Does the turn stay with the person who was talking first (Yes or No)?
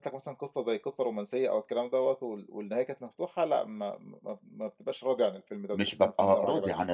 No